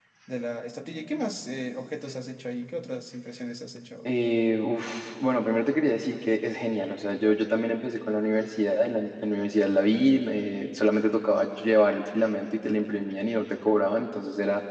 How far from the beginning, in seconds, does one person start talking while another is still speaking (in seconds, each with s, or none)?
none